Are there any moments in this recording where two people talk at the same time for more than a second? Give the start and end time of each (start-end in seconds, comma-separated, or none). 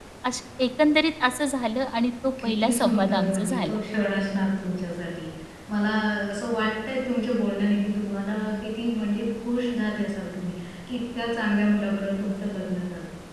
2.4-3.8